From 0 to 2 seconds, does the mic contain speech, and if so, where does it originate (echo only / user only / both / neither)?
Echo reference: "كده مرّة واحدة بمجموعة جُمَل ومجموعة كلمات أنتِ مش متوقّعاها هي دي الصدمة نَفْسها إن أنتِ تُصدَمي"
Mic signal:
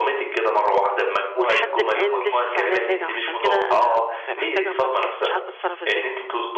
both